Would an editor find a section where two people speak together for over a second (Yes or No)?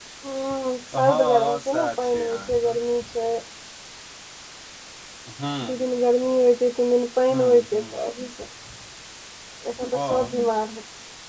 Yes